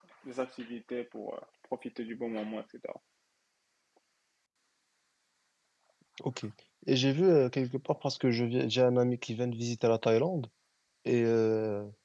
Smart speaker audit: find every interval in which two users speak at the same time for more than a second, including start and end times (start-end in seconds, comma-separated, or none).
none